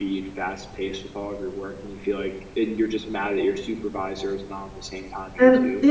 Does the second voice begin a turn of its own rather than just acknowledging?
Yes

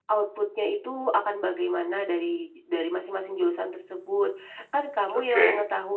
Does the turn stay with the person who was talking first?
Yes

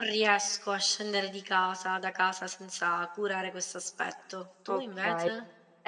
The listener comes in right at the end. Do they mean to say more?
Yes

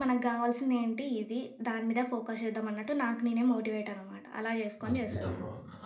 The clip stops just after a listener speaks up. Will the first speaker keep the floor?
No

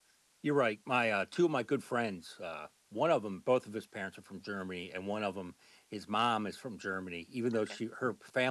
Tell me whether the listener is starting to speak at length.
No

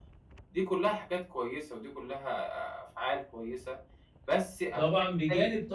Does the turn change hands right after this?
Yes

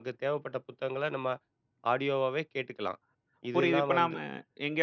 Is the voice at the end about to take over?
Yes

